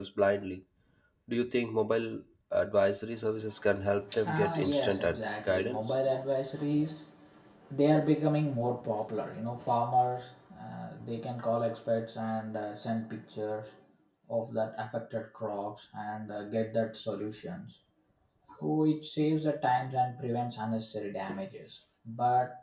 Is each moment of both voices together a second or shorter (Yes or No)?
No